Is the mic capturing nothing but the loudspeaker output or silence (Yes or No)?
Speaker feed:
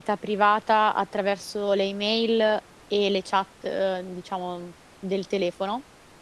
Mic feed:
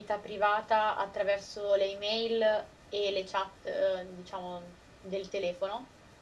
Yes